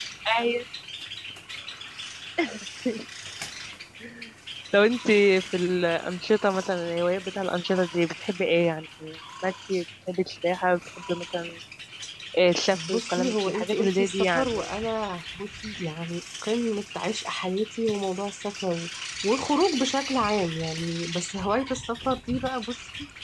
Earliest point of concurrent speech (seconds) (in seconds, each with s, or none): 12.7 s